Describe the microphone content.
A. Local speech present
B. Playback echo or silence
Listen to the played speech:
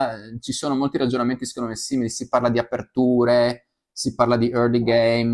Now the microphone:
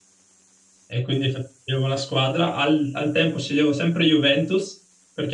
A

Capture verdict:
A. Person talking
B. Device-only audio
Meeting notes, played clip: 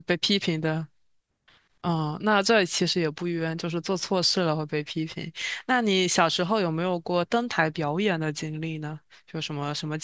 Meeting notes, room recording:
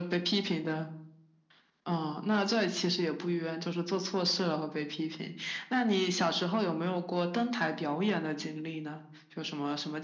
B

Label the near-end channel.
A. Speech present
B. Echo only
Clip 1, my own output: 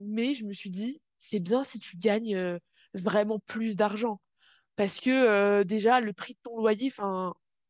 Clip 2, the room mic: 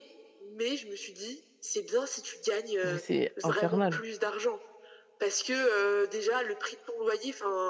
A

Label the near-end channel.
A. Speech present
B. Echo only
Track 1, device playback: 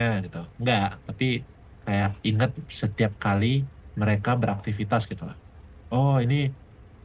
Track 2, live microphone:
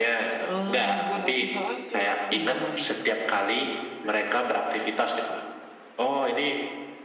A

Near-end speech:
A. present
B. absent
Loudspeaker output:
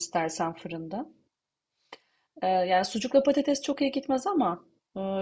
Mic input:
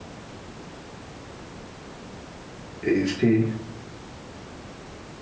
A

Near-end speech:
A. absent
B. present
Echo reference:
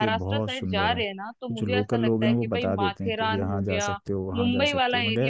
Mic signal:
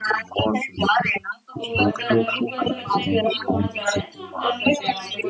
B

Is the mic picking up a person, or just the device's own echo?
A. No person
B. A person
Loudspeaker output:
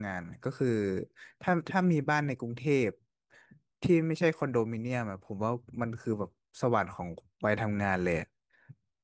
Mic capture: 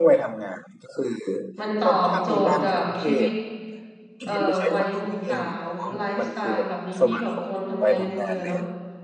B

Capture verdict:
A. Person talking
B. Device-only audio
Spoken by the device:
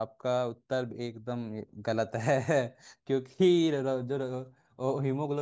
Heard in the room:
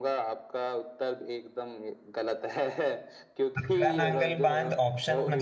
A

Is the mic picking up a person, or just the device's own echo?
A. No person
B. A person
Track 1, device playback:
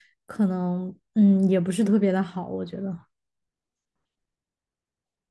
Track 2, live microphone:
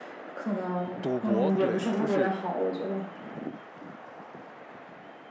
B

